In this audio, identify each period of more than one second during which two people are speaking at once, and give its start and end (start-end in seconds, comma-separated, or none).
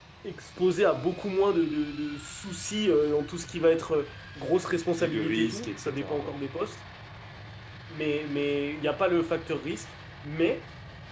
4.7-6.3